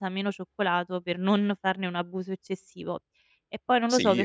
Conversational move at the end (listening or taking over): taking over